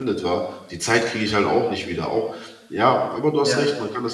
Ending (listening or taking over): listening